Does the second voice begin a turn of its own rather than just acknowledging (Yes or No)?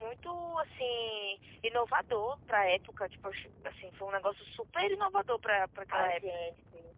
Yes